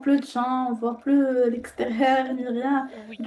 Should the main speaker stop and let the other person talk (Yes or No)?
No